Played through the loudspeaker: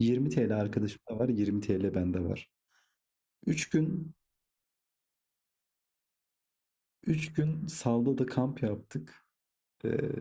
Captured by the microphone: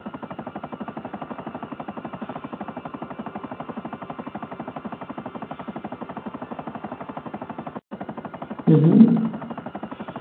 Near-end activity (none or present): present